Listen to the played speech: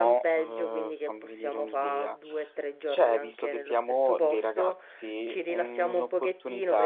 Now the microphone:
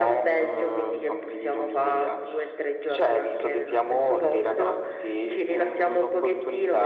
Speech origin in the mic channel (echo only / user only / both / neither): echo only